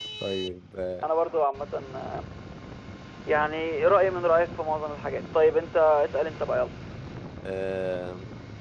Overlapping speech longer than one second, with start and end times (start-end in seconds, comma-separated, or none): none